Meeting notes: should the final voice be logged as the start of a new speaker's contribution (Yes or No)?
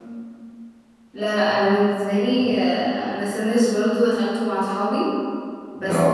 No